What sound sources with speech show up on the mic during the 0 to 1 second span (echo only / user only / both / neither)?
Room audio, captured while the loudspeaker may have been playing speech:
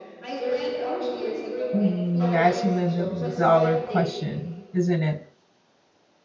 echo only